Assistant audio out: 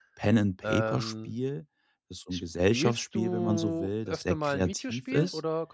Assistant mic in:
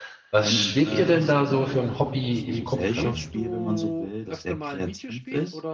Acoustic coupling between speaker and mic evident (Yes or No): Yes